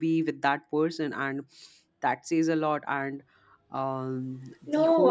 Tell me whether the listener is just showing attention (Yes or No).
No